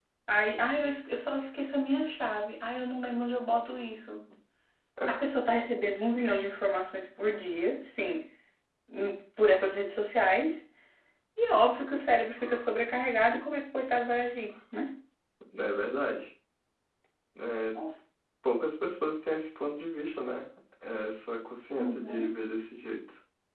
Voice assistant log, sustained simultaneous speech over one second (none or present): none